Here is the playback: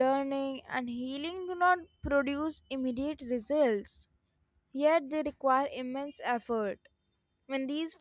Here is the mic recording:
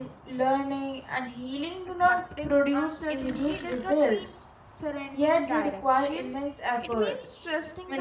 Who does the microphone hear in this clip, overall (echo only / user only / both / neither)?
both